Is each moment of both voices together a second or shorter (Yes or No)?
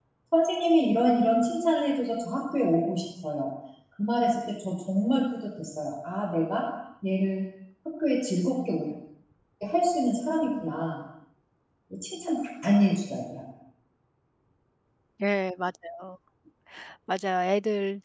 Yes